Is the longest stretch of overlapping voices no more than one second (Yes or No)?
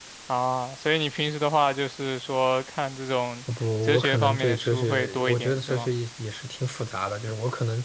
No